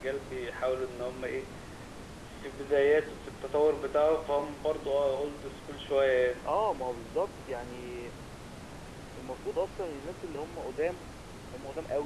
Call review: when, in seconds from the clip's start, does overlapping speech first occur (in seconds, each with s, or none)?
none